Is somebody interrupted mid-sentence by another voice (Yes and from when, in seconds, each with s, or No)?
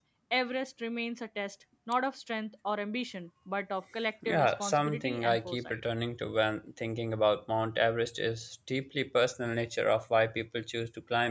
Yes, from 4.2 s